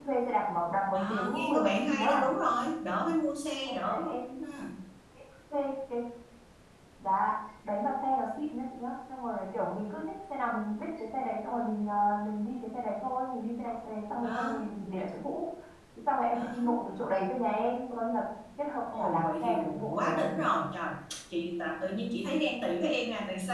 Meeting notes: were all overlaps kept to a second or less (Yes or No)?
No